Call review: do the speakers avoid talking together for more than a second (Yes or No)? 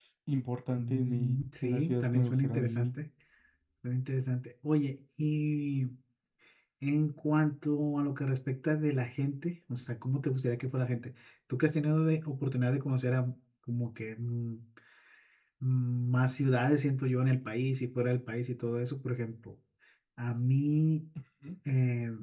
No